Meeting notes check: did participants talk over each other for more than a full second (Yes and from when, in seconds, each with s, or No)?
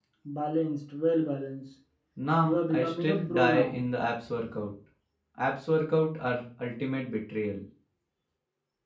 Yes, from 2.4 s